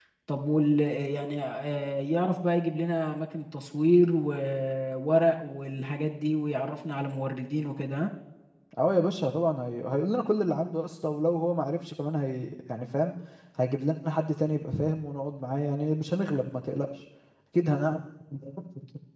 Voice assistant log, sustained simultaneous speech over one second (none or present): none